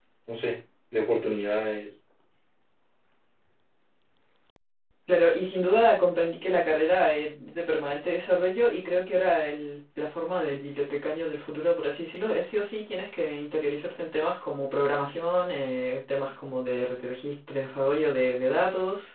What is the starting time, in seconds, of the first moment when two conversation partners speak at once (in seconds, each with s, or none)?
none